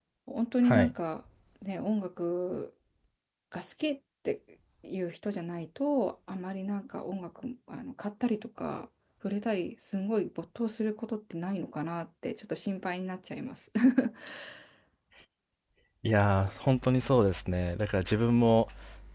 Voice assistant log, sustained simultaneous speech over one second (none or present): none